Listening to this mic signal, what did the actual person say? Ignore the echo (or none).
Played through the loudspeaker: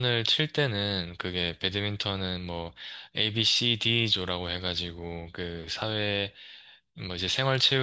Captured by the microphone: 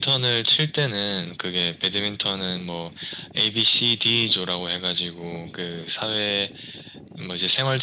none